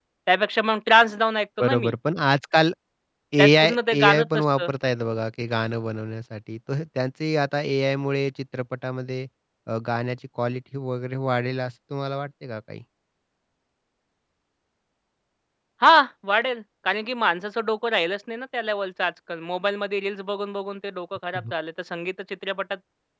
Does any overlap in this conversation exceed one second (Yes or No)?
Yes